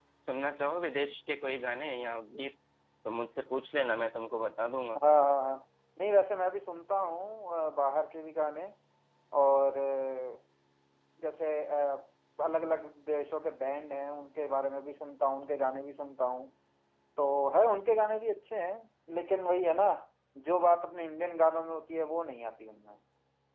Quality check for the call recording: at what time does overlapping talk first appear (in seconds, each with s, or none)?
none